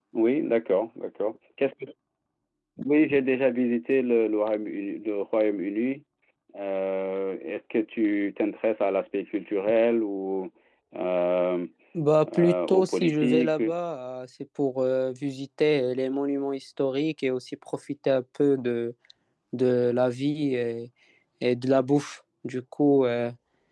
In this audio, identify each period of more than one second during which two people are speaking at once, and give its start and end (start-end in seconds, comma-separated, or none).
12.4-13.6